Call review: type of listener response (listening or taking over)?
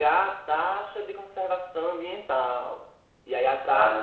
listening